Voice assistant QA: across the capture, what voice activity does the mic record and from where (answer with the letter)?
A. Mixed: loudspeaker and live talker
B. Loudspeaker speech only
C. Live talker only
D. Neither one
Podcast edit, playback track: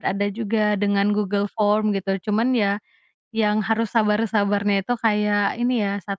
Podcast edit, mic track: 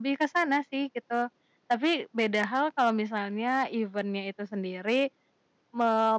C